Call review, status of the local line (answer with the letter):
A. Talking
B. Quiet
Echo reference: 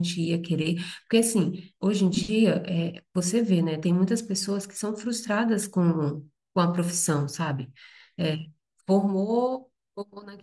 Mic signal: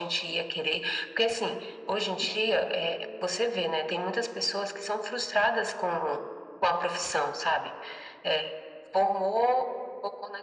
B